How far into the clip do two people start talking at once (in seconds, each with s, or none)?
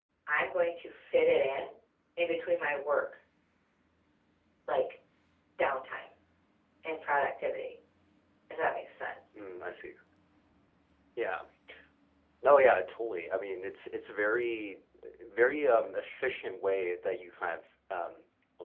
none